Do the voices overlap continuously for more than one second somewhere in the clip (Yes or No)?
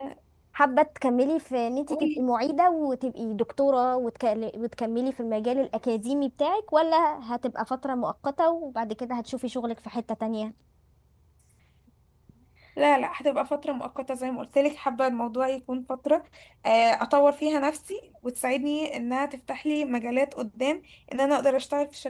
No